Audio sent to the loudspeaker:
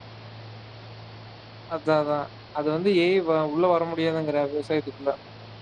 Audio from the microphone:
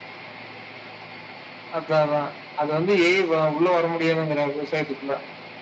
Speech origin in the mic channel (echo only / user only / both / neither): echo only